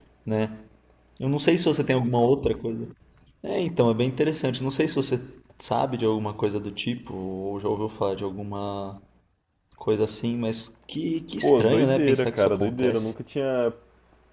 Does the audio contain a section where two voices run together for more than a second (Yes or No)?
Yes